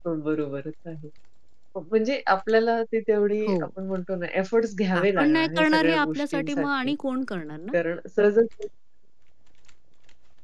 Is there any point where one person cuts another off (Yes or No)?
Yes